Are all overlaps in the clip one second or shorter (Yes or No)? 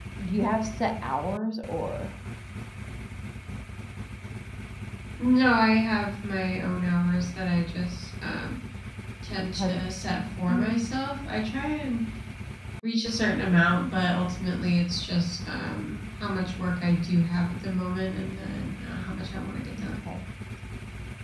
Yes